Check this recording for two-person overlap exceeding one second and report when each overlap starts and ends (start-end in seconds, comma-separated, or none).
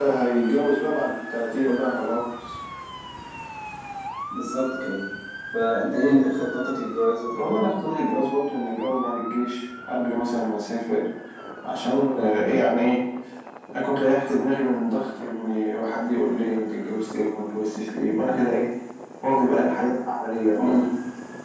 none